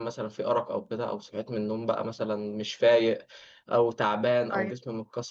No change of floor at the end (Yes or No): Yes